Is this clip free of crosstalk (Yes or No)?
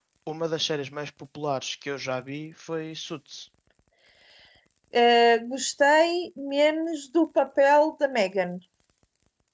Yes